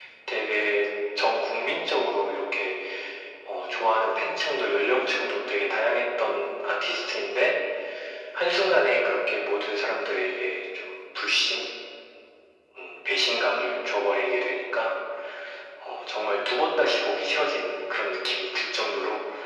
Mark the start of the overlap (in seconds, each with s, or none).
none